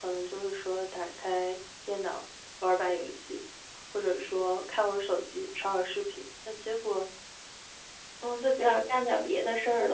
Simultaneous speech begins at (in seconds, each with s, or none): none